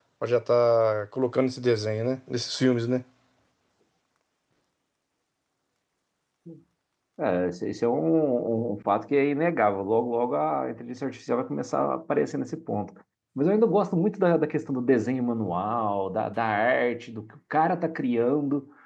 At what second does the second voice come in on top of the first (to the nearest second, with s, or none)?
none